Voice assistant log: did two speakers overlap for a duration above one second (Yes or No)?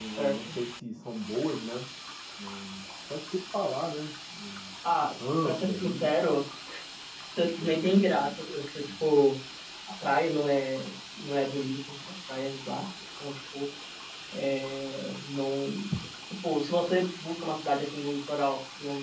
Yes